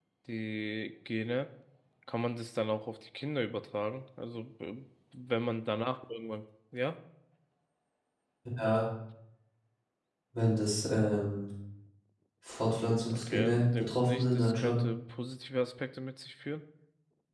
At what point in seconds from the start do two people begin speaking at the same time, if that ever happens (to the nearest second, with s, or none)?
13 s